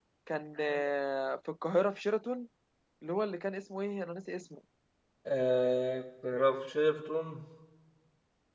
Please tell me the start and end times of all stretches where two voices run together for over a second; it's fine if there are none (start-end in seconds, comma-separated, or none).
none